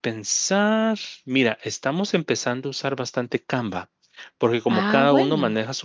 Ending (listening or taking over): listening